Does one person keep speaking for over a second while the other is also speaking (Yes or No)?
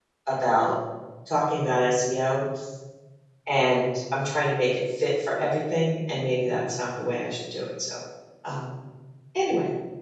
No